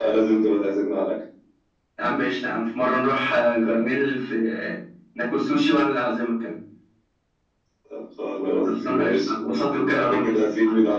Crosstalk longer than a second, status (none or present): present